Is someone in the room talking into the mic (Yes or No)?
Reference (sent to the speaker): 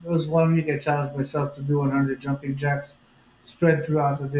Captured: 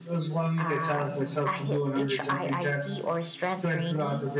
Yes